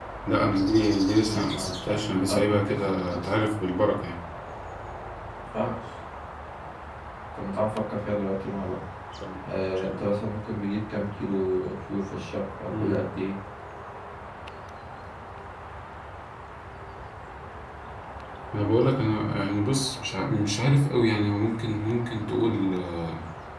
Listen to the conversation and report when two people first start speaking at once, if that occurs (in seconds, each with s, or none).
1.2 s